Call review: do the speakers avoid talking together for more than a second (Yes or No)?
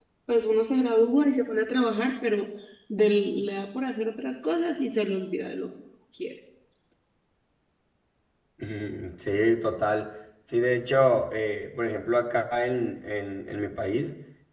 Yes